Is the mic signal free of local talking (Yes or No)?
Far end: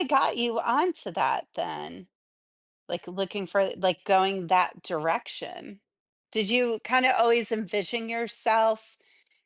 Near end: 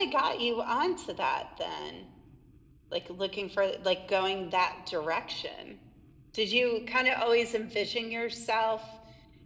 Yes